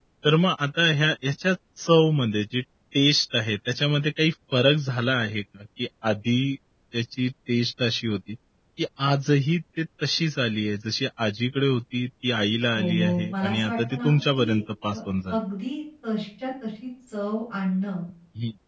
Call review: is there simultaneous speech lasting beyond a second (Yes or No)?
Yes